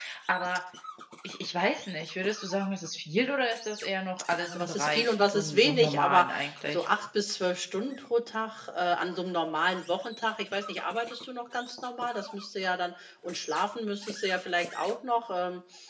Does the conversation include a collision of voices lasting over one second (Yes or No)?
Yes